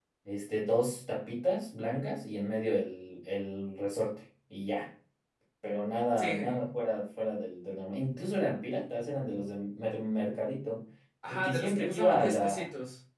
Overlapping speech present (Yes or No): Yes